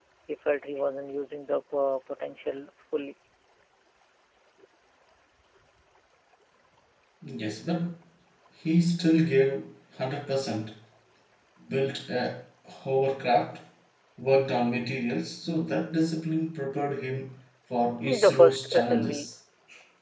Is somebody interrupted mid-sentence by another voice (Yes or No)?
Yes